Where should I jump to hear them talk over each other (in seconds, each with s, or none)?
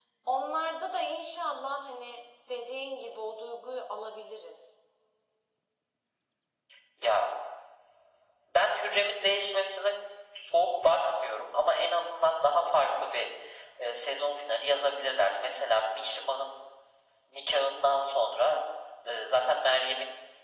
none